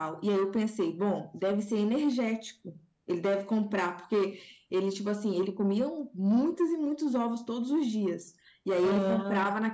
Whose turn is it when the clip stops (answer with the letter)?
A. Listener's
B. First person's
B